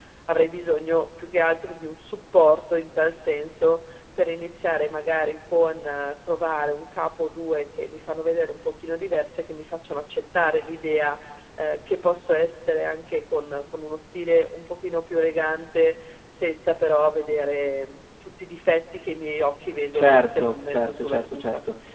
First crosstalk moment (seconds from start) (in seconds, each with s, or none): 19.9 s